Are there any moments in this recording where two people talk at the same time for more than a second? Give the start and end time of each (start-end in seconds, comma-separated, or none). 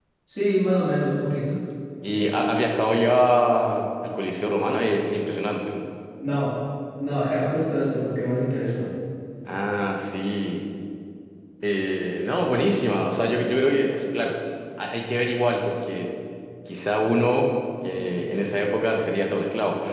none